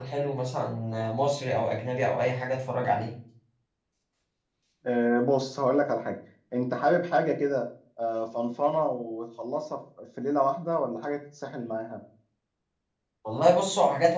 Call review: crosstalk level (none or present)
none